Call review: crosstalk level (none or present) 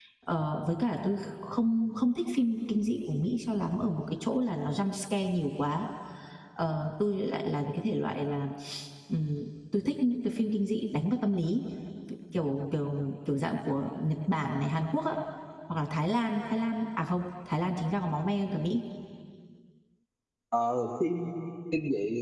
none